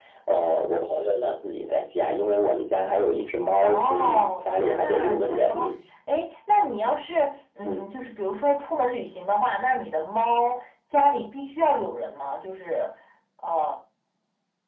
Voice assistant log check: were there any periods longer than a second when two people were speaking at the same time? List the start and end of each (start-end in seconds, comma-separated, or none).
3.7-5.7